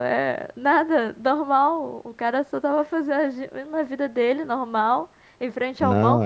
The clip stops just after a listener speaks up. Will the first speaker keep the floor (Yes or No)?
Yes